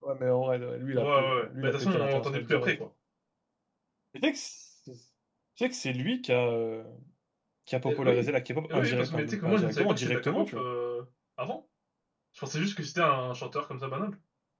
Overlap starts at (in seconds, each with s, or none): 1.0 s